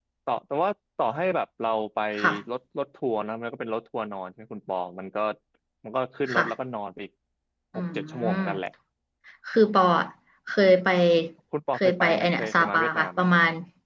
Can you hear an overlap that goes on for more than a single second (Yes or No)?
Yes